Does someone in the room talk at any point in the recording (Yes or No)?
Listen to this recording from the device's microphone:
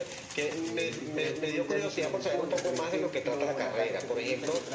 Yes